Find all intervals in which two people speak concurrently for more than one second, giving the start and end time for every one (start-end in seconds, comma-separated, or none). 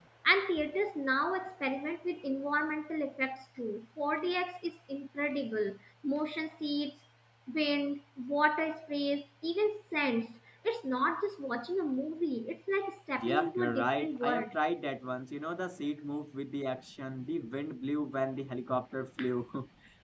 13.2-14.5